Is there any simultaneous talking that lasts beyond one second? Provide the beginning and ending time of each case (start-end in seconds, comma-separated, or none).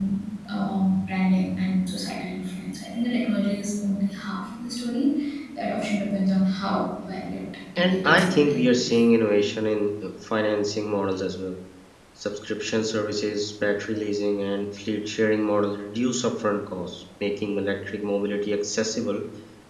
7.8-9.0